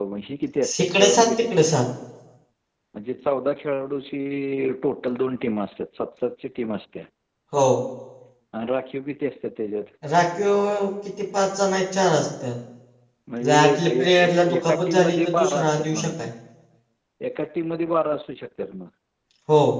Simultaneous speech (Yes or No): Yes